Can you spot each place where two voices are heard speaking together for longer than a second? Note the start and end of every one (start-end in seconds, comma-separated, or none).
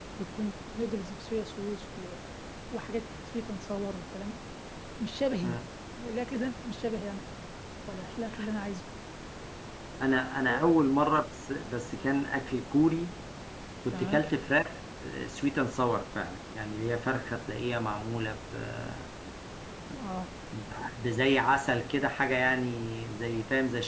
none